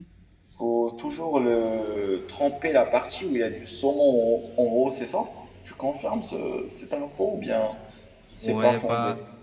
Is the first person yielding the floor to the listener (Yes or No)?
Yes